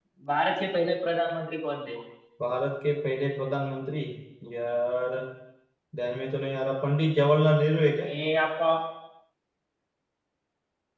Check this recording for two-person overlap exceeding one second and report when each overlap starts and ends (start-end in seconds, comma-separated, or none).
none